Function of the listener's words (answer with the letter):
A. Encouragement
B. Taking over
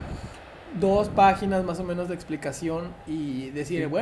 A